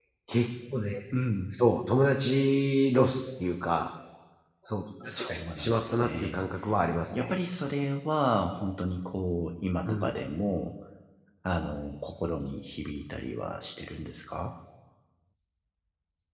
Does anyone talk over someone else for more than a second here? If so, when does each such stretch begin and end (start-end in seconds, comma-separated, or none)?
5.0-6.4